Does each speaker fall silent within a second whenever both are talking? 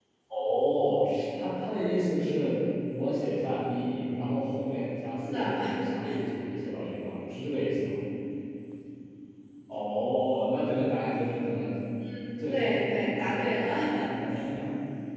No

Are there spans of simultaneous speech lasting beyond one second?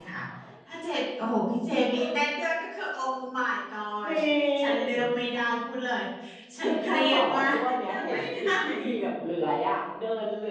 Yes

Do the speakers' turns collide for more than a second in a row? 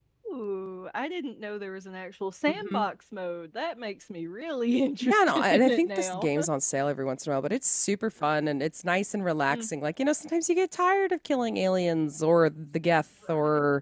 Yes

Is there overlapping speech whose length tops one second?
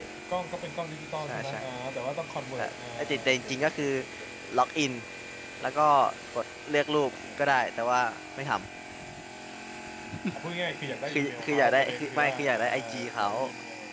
Yes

